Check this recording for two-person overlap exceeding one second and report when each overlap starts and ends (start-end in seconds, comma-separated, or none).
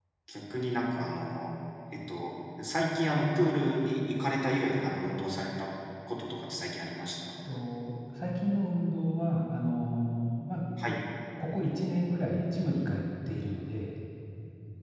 none